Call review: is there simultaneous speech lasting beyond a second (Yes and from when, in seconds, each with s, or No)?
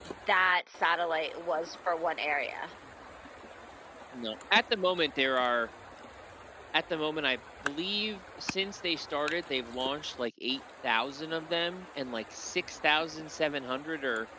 No